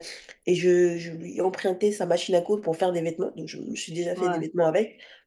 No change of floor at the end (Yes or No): Yes